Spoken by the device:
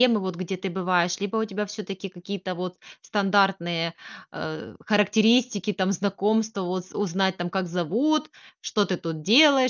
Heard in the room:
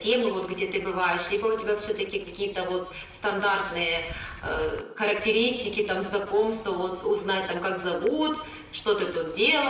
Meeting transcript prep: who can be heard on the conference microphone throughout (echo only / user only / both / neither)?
echo only